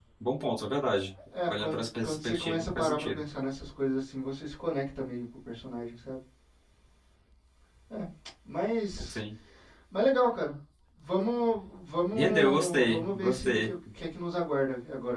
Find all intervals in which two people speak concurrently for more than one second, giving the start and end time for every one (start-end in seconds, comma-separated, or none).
1.5-3.2, 12.2-13.7